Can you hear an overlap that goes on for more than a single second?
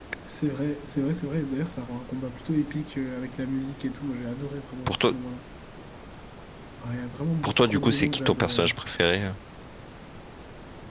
Yes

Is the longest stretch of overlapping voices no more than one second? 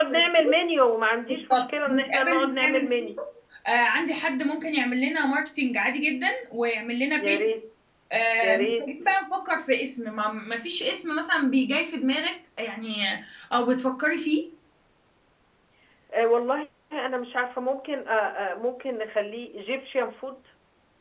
No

